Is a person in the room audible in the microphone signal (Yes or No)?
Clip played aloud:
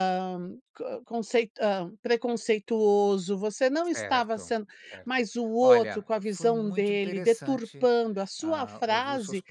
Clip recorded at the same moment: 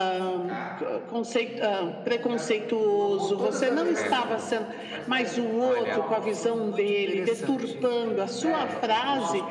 Yes